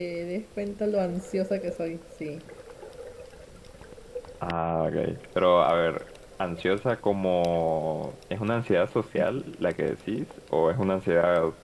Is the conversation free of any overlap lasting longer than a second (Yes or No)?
Yes